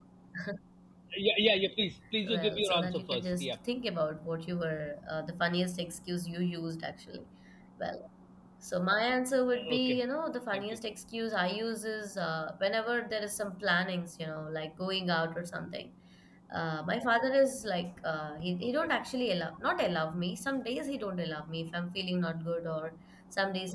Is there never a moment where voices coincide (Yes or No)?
No